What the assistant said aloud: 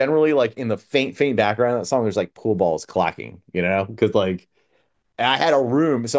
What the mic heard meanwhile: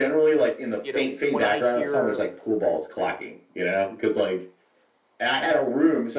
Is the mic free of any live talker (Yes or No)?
No